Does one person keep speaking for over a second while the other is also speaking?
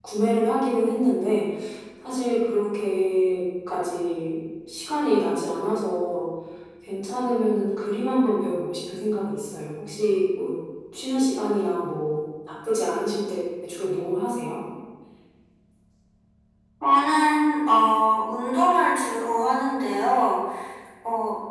No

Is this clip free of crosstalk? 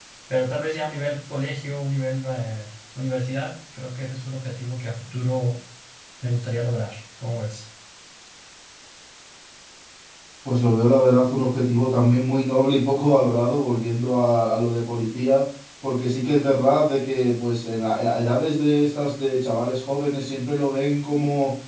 Yes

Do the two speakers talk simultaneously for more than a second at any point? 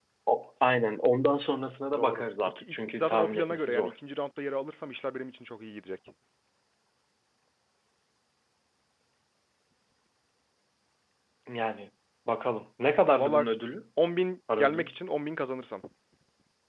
Yes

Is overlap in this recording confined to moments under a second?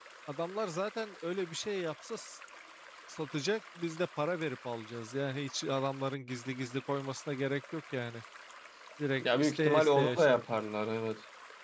No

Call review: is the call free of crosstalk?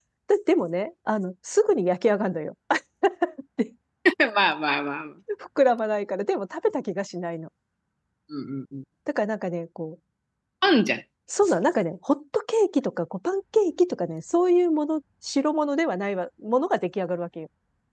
Yes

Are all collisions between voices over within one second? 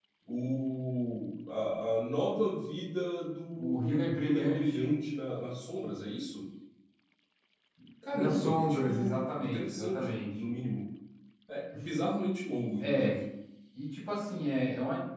No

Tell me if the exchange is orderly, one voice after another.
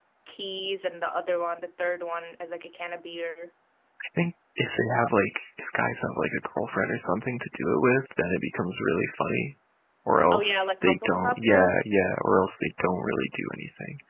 No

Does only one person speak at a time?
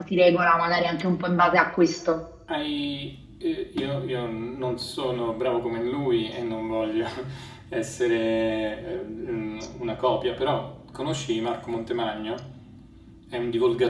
Yes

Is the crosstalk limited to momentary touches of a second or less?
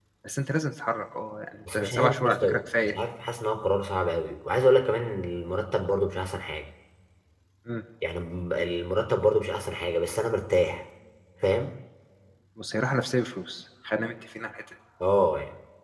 No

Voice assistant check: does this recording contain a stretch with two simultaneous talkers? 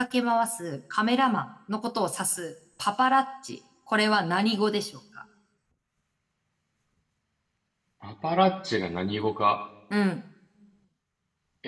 No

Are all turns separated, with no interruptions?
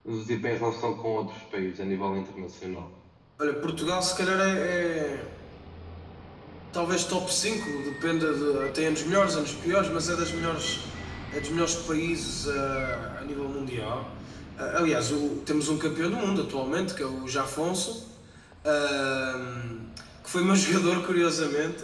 Yes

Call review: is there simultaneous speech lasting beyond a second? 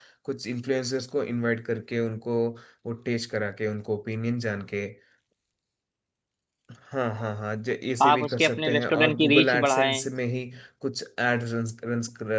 Yes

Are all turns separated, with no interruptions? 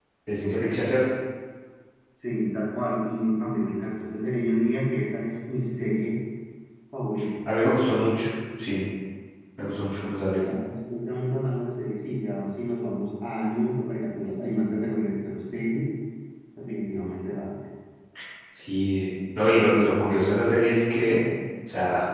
Yes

